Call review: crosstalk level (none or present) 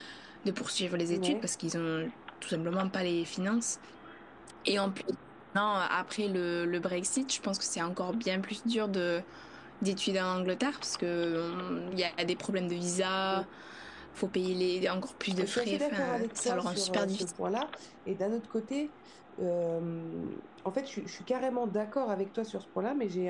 present